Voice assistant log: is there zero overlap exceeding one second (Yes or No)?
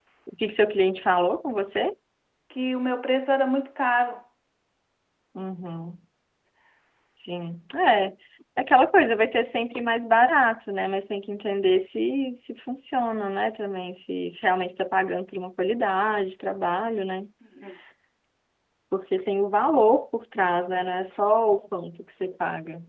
Yes